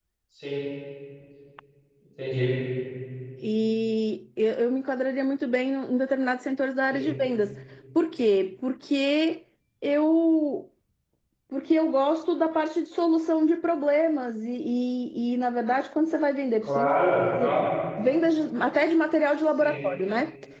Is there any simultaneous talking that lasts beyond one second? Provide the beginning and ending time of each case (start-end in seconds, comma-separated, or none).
none